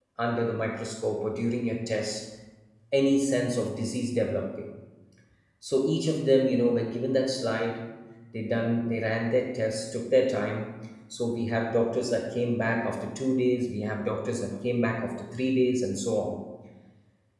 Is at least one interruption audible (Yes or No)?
No